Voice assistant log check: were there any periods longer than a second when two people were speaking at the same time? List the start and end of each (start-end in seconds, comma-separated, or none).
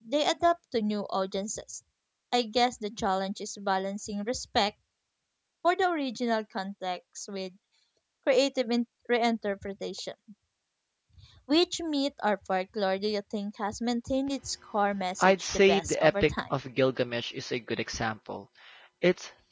15.2-16.5